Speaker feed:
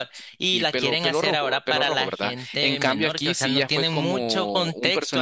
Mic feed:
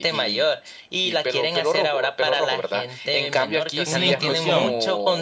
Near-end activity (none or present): present